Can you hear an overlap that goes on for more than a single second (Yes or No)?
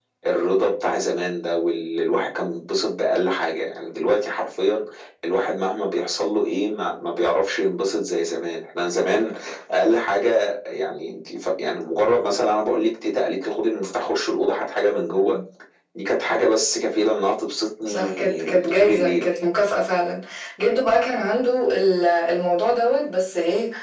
Yes